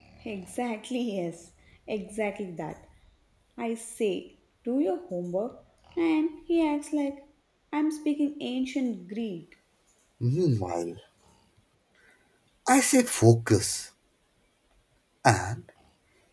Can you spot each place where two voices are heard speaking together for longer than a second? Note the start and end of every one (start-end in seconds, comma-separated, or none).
none